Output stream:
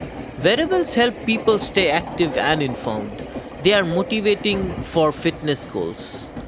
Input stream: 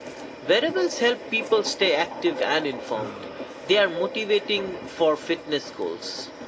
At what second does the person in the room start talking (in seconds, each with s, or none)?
none